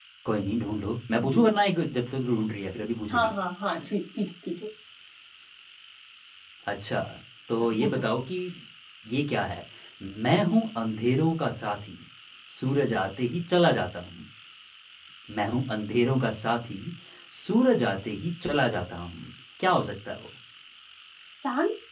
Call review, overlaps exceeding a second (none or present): none